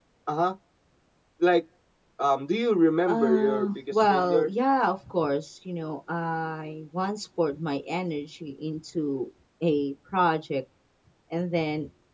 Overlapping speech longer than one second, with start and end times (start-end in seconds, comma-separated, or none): 3.1-4.5